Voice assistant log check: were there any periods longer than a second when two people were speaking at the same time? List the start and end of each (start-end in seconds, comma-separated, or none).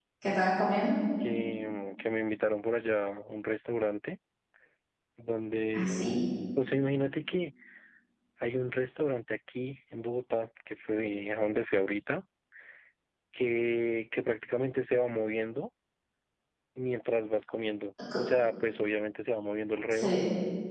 none